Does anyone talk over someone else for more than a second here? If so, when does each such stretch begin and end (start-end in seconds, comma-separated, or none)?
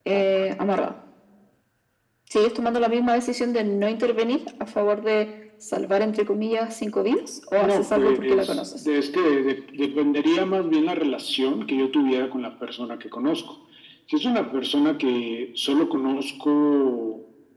7.6-8.8